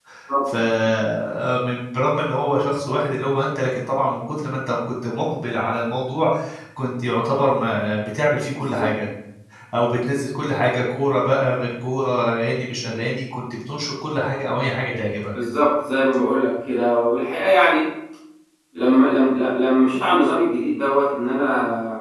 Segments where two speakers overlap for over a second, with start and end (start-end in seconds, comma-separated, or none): none